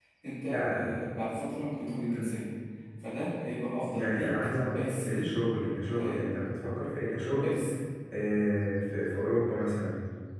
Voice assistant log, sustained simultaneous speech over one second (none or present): present